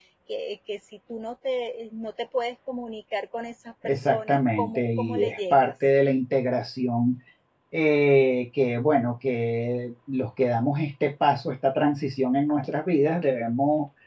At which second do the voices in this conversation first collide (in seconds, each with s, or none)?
3.8 s